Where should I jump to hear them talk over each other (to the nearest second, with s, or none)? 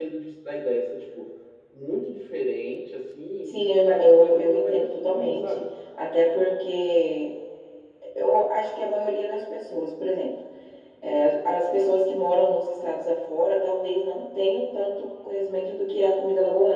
3 s